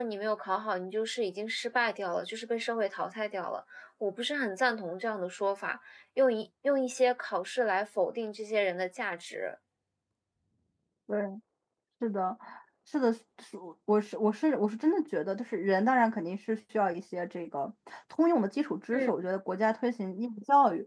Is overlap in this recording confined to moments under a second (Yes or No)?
Yes